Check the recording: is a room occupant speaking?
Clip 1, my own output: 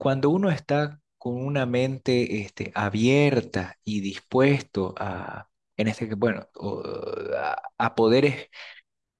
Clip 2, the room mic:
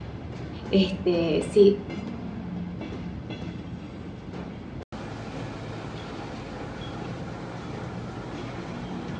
Yes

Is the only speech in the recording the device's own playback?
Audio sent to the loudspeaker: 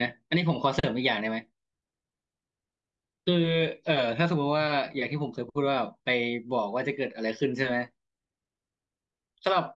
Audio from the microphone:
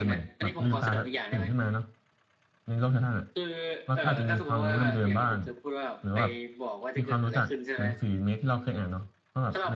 No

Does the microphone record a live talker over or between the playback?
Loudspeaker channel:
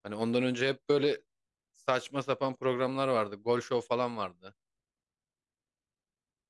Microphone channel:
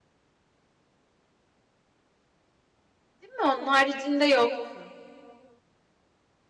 Yes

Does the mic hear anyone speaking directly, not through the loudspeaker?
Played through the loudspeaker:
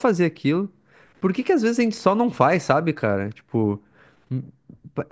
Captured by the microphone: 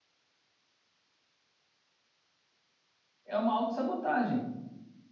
Yes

